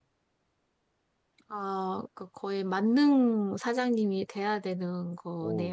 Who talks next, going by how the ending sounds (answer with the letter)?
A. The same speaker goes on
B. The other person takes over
B